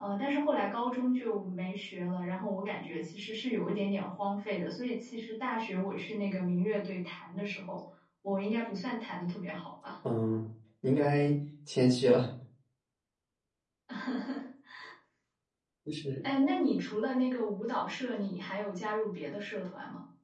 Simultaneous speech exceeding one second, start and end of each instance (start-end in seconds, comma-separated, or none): none